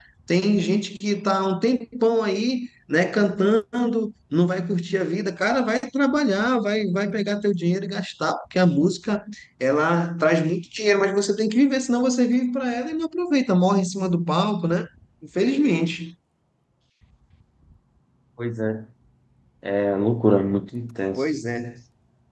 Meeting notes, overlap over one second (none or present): none